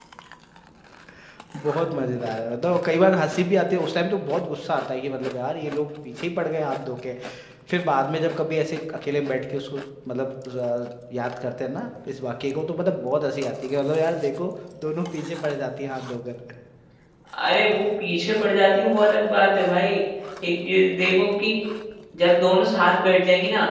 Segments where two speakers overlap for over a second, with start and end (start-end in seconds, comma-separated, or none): none